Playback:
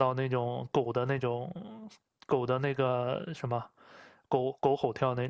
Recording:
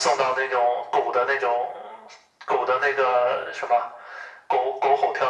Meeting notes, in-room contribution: none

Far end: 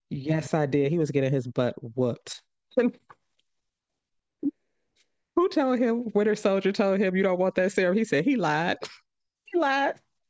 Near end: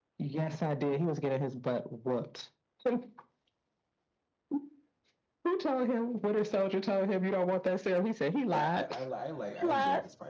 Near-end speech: present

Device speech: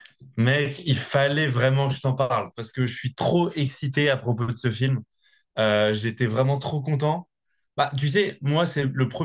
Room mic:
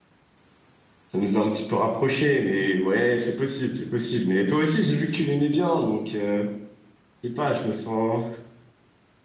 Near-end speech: present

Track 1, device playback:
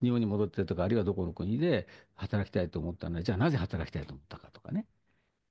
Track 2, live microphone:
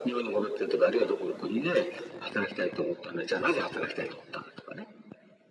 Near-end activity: none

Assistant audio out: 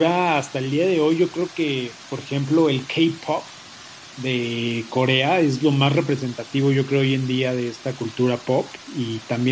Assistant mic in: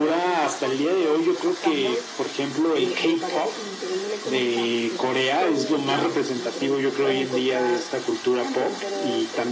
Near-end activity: present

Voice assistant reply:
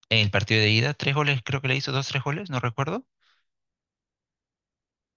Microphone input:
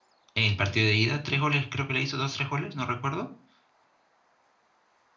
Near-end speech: none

